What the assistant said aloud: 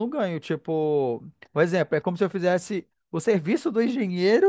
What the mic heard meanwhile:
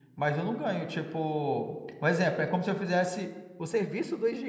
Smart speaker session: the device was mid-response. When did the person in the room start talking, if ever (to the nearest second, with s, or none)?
none